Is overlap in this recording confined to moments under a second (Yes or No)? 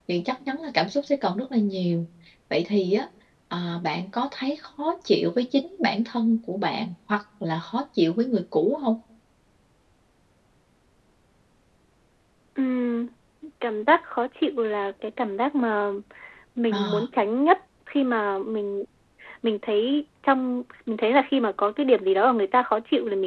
Yes